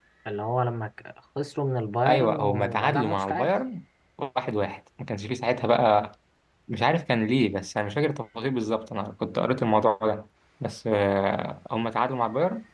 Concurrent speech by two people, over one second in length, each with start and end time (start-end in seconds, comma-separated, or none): 2.1-3.5